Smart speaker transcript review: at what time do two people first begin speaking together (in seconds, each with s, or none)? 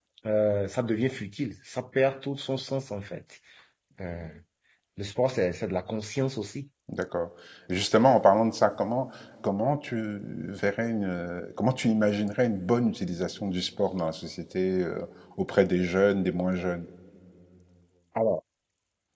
none